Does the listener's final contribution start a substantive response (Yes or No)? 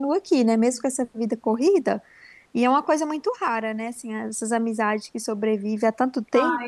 Yes